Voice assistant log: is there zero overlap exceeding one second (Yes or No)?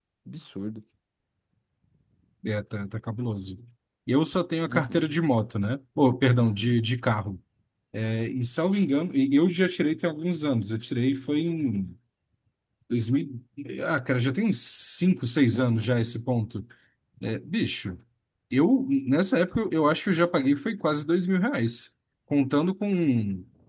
Yes